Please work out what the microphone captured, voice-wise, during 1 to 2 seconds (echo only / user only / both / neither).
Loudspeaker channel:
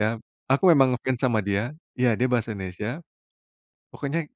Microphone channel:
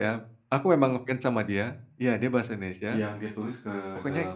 echo only